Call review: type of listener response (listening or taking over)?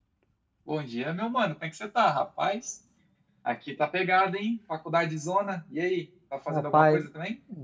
taking over